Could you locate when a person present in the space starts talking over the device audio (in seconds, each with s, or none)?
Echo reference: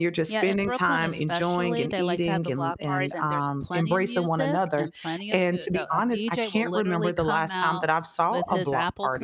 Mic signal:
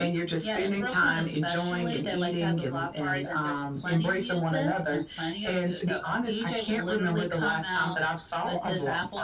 none